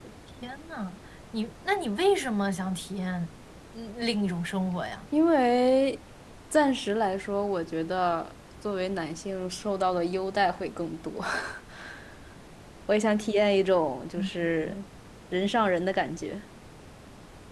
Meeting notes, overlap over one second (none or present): none